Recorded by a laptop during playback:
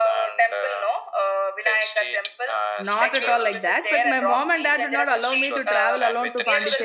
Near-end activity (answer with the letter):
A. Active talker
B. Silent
A